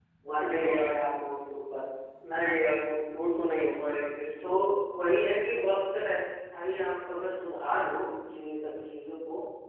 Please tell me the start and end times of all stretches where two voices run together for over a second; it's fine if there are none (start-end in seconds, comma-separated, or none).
none